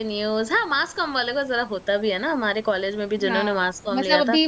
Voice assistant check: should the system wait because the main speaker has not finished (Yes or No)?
No